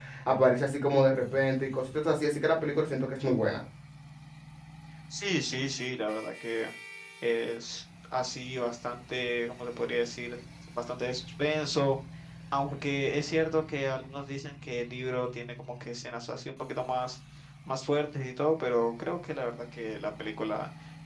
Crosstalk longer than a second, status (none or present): none